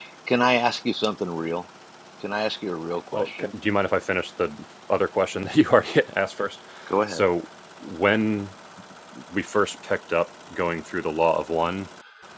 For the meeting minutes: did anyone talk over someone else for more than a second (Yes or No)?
No